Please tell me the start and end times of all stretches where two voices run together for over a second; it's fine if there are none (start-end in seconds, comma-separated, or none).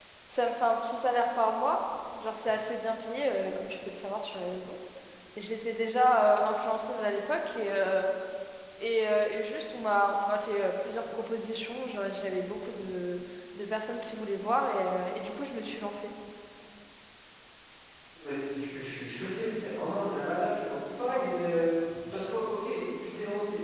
none